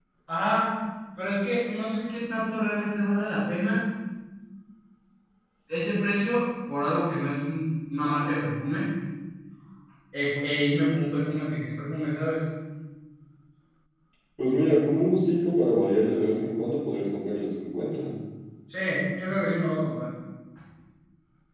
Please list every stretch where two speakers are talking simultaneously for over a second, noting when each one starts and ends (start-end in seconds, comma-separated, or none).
none